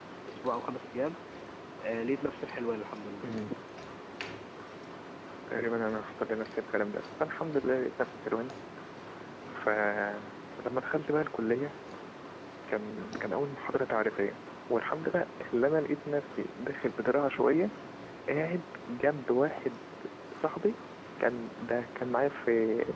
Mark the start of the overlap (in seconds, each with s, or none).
none